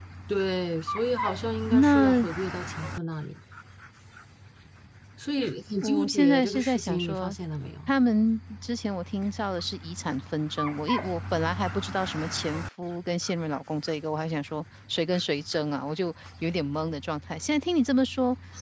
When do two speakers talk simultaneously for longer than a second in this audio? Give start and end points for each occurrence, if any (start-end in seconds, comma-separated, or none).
5.8-7.4